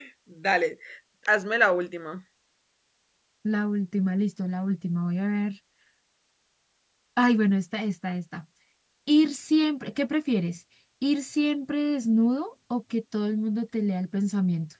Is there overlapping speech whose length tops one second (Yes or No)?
No